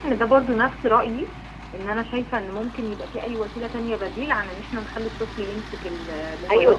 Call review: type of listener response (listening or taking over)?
taking over